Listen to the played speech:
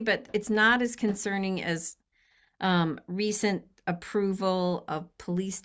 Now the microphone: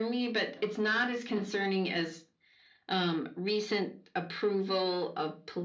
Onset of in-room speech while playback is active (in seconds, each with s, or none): none